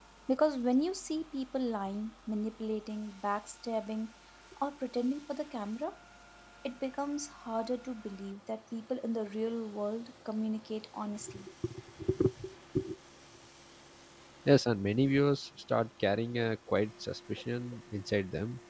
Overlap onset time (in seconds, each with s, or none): none